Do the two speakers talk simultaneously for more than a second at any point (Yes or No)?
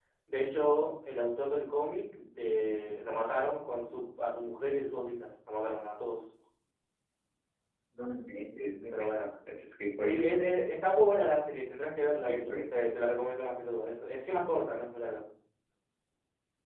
No